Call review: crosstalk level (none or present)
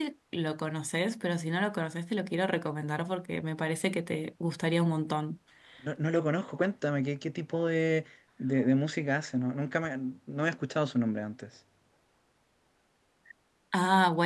none